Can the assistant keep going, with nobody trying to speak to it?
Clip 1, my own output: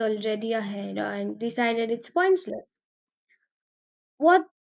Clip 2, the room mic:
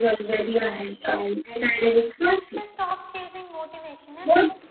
No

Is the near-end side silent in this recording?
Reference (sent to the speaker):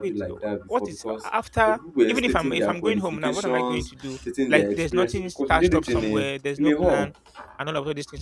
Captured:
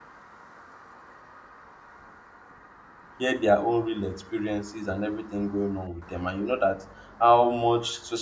No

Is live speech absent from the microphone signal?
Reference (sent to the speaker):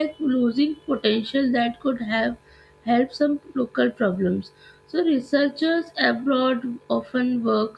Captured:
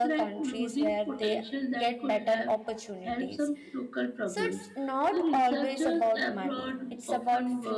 No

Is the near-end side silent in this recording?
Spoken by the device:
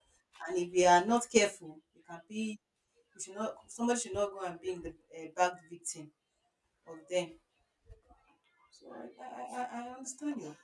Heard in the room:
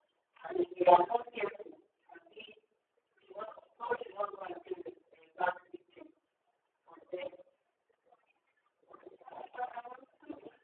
Yes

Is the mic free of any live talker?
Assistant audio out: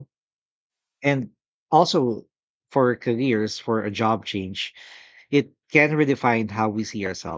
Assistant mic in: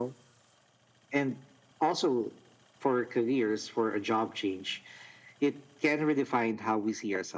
Yes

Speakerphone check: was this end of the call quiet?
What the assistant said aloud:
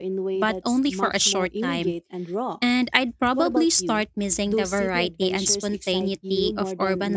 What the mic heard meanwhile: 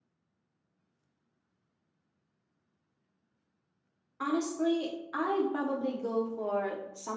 No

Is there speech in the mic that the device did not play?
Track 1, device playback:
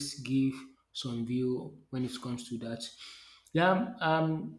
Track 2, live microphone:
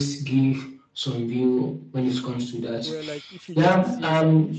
Yes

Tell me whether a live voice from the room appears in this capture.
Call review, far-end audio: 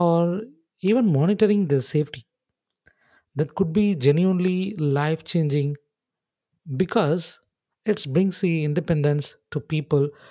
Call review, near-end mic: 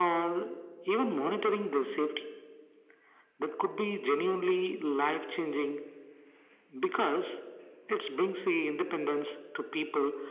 No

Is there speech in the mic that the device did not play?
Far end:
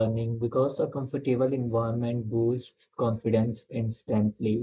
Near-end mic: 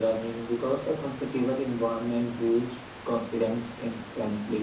No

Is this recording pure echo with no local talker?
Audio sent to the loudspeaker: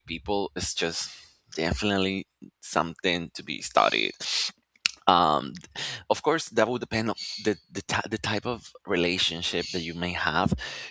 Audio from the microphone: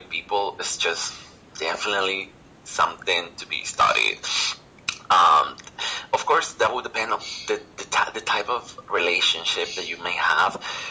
Yes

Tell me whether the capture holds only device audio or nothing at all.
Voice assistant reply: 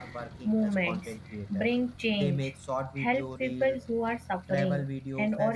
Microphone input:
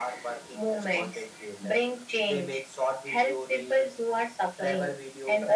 Yes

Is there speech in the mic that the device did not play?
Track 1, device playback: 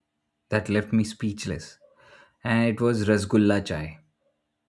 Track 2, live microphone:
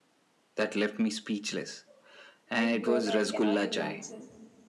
Yes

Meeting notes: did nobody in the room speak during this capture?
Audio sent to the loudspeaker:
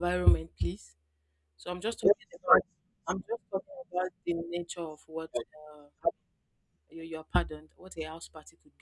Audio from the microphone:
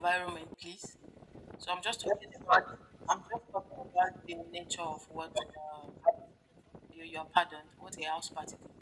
Yes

